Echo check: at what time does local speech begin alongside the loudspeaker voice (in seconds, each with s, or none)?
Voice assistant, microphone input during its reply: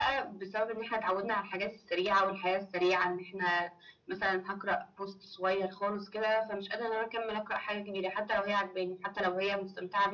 none